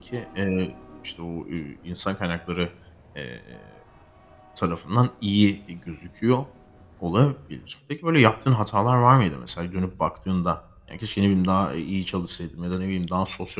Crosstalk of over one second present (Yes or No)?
No